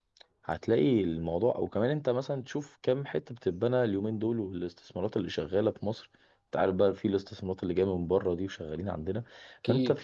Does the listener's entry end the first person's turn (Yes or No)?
No